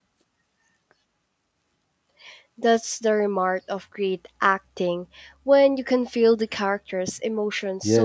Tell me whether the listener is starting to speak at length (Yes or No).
Yes